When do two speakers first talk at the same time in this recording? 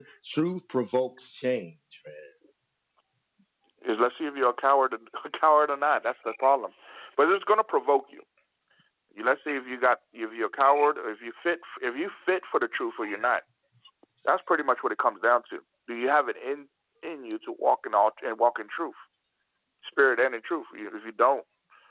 none

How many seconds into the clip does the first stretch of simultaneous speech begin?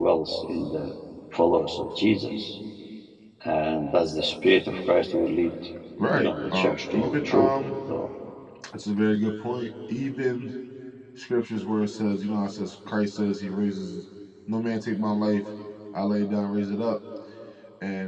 6 s

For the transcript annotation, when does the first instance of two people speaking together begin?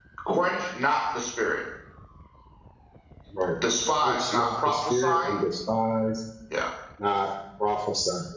4 s

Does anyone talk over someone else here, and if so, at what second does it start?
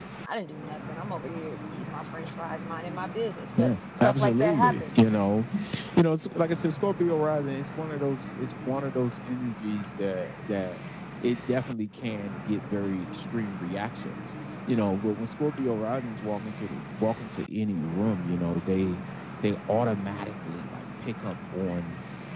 4 s

